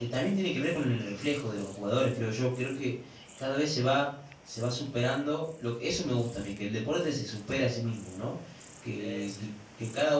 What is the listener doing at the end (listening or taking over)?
listening